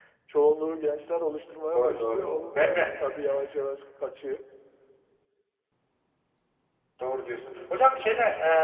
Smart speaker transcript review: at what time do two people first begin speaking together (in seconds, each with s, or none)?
1.7 s